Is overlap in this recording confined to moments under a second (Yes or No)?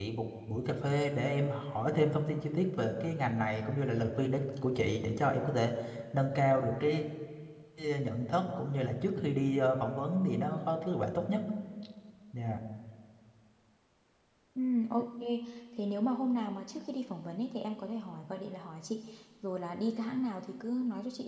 Yes